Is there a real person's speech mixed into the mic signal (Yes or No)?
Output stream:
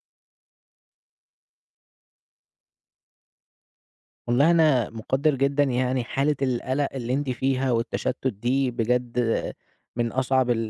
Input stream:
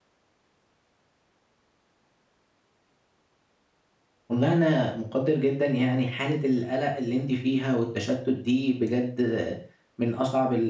No